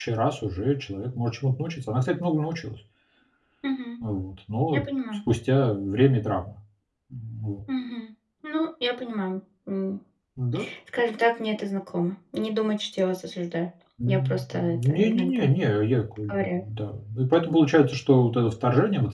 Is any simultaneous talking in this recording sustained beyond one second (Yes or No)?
Yes